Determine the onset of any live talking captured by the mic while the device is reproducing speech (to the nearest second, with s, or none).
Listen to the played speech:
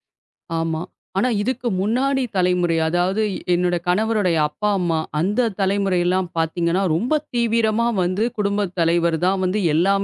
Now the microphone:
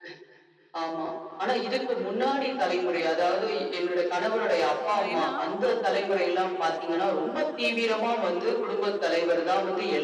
5 s